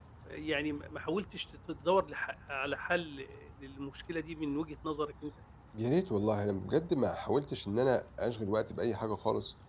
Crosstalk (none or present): none